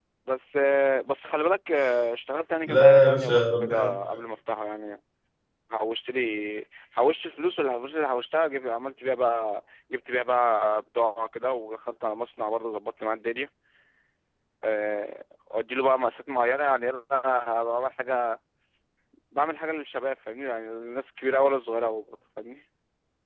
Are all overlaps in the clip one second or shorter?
No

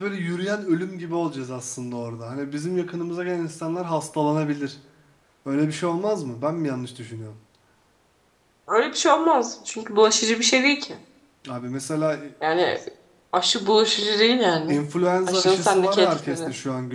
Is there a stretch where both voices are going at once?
Yes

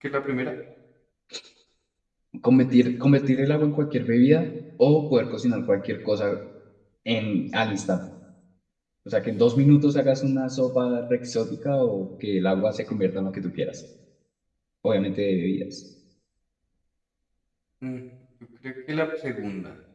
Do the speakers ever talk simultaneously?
No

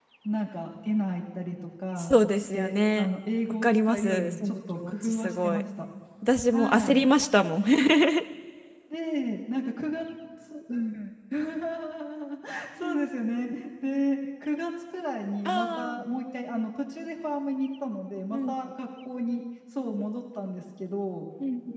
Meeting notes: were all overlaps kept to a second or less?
No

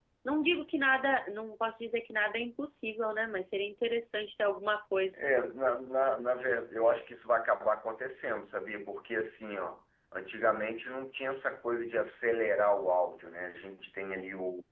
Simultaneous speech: No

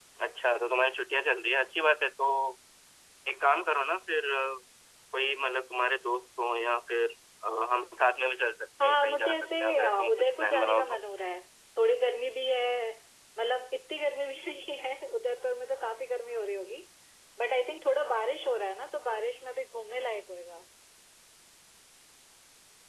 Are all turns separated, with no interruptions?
No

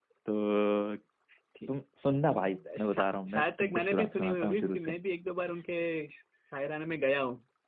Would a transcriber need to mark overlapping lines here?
Yes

